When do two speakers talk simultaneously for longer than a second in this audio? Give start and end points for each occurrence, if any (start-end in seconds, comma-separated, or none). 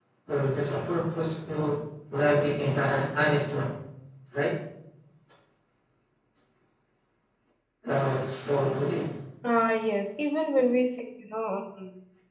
none